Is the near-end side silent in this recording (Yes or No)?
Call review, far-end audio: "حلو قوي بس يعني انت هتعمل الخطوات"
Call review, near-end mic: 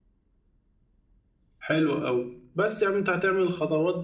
Yes